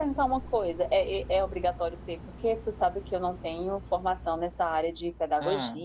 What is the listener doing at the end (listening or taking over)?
listening